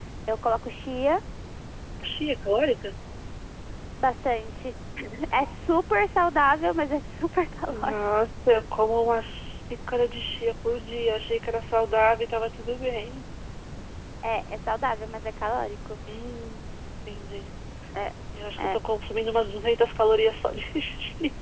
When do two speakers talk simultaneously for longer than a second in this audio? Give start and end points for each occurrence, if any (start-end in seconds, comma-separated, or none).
none